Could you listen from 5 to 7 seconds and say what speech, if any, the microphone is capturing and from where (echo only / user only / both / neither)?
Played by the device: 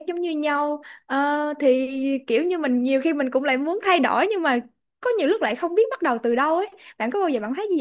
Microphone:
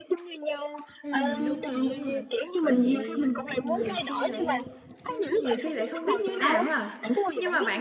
both